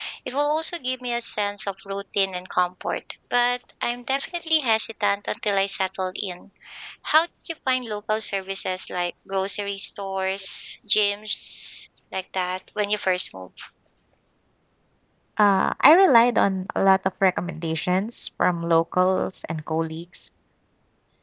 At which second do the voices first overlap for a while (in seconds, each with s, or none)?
none